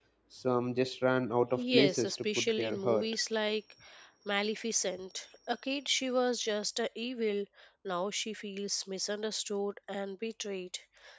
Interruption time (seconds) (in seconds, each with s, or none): 1.6 s